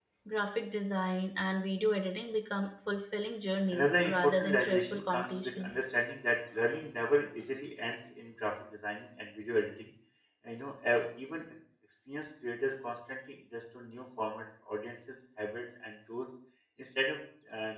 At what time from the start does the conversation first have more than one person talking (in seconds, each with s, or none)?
3.7 s